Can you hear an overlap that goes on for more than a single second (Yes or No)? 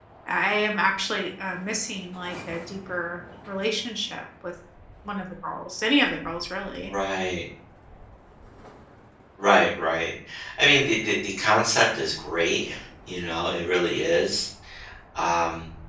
No